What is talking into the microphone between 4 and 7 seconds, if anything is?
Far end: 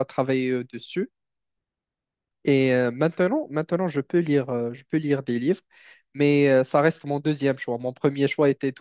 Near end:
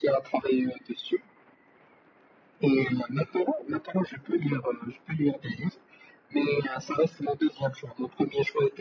echo only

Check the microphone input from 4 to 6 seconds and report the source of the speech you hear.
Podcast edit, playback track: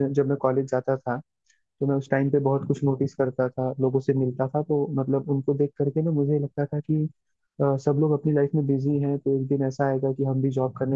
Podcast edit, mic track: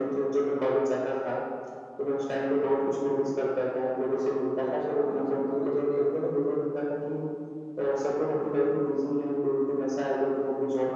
both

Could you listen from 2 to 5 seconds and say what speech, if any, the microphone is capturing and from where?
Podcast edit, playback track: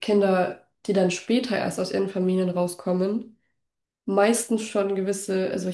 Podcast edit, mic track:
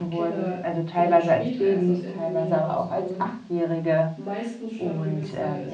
both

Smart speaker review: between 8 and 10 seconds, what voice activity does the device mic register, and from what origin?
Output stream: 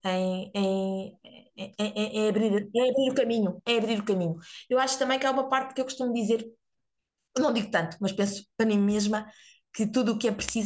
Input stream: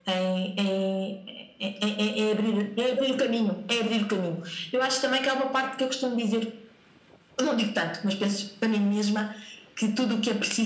echo only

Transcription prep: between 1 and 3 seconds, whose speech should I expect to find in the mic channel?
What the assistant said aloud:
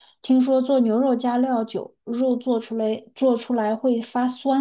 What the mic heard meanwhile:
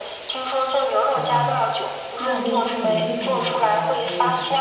both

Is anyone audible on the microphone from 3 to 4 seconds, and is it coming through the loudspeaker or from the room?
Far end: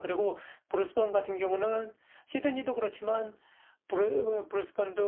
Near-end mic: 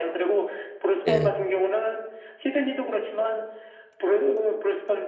echo only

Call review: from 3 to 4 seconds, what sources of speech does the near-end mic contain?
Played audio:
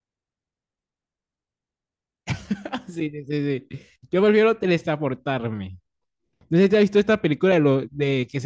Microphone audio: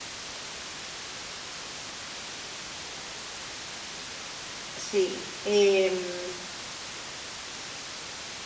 neither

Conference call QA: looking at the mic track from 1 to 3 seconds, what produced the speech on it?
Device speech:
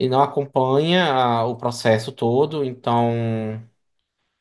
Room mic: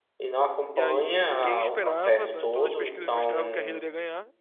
both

